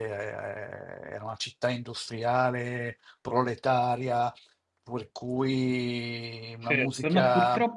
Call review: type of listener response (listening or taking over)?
taking over